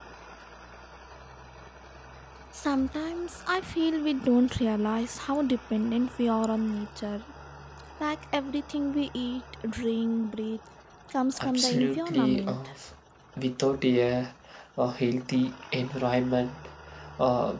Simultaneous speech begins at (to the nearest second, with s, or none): 11 s